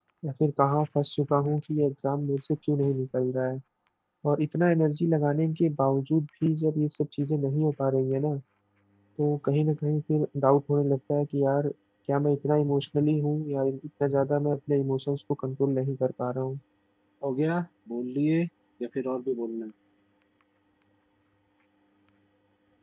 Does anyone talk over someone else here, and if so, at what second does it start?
none

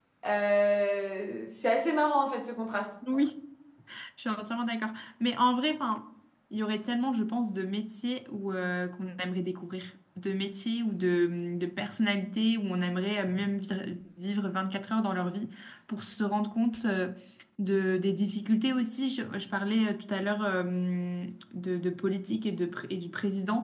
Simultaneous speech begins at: none

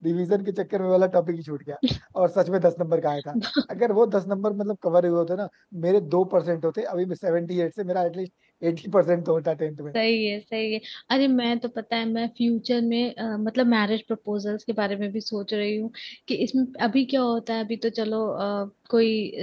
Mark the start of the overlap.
none

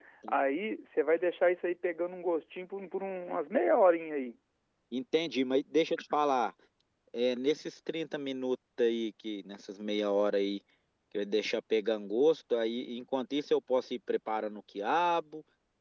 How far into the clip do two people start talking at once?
none

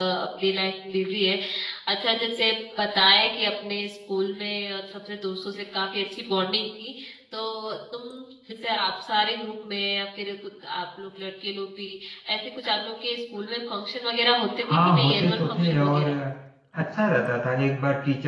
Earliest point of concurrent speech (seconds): 14.6 s

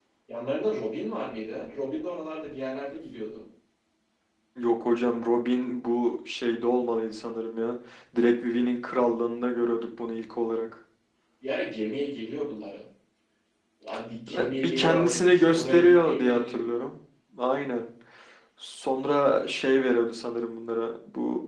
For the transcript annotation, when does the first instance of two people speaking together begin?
14.3 s

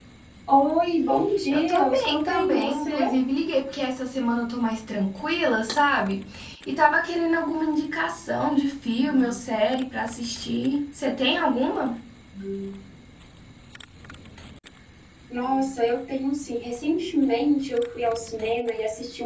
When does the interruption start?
1.5 s

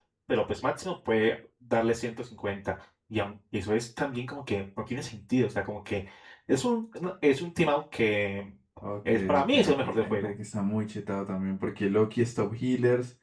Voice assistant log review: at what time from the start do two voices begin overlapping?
9.1 s

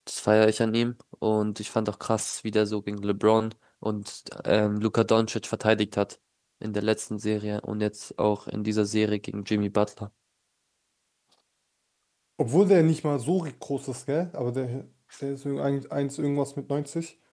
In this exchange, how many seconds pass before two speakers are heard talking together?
none

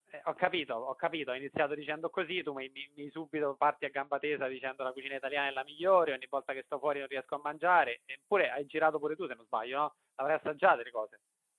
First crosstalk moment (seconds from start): none

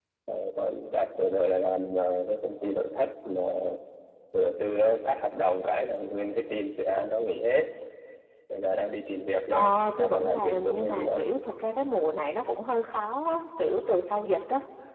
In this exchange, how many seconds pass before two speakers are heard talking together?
9.5 s

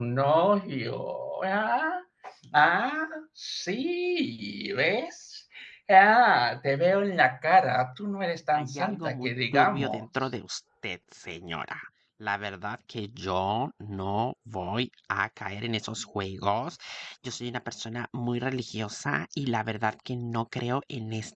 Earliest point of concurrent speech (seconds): 8.5 s

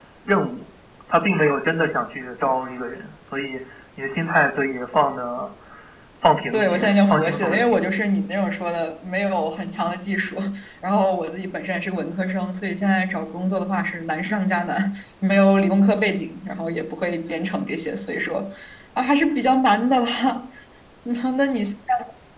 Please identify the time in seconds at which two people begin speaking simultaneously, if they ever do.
6.5 s

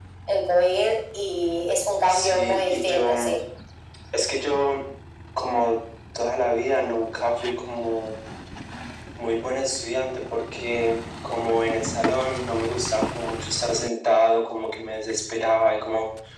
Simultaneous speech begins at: 2.1 s

